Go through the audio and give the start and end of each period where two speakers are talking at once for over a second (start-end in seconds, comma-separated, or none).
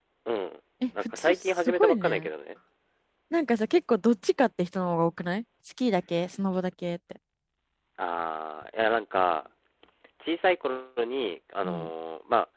1.0-2.3